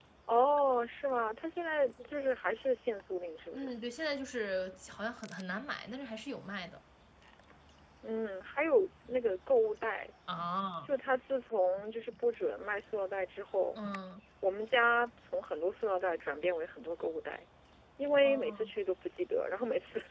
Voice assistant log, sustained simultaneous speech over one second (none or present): none